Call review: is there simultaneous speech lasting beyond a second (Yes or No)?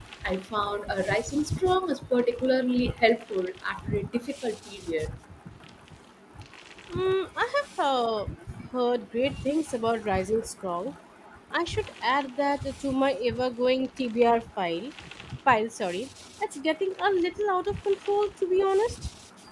No